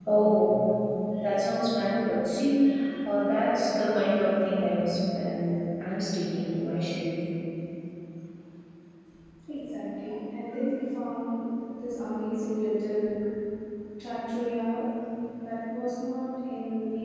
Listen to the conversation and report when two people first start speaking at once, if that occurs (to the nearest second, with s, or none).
none